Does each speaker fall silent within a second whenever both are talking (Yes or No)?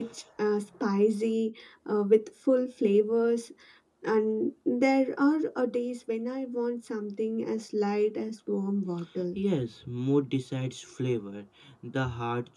Yes